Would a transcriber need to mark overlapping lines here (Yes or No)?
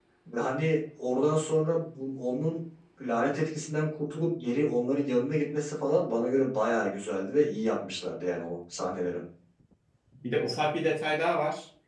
No